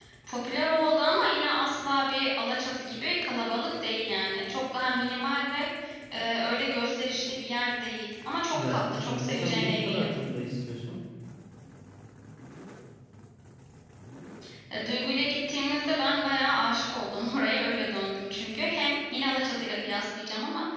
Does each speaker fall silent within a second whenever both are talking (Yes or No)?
No